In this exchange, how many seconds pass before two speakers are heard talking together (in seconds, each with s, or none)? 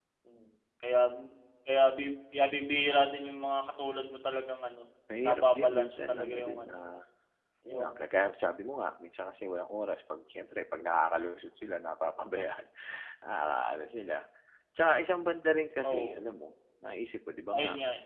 5.2 s